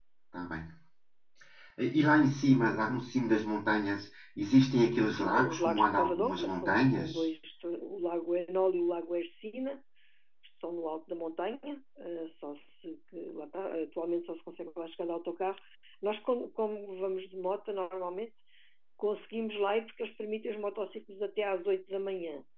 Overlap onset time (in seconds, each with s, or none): 5.2 s